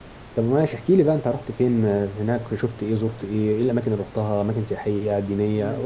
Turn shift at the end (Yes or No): Yes